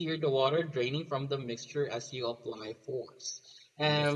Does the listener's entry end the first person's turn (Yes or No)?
No